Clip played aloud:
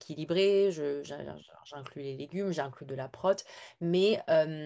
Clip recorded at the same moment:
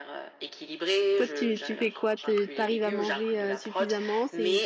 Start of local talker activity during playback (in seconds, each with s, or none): 1.1 s